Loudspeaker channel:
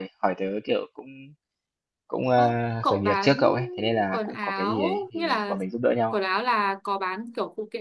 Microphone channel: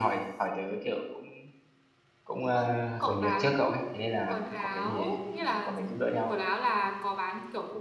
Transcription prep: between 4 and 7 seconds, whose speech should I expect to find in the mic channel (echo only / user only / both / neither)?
echo only